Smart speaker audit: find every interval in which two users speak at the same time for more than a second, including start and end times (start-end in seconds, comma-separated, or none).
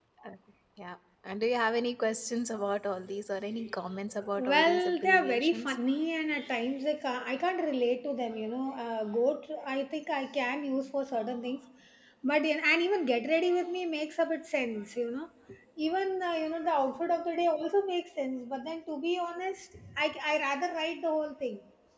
4.4-5.7